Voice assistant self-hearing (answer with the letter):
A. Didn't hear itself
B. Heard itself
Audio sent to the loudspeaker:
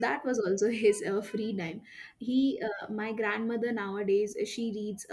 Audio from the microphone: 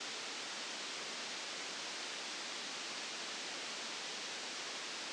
A